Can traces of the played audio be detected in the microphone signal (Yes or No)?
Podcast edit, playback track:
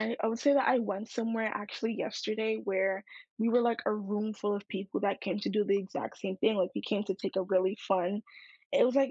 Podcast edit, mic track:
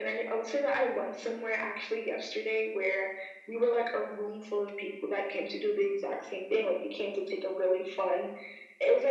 Yes